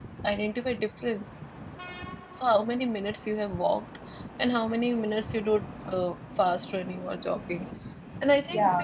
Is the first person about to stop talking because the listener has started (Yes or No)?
No